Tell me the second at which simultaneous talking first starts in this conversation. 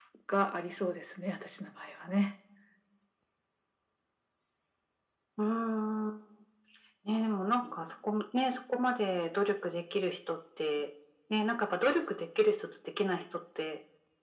none

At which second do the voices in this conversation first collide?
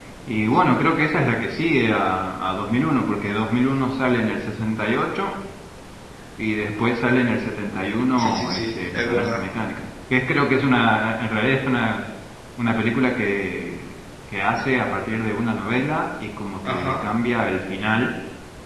8 s

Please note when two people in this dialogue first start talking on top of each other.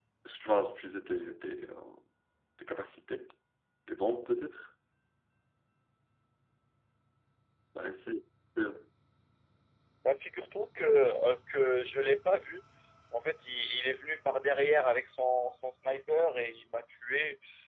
none

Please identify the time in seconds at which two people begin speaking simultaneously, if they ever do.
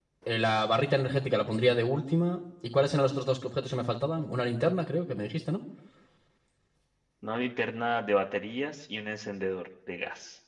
none

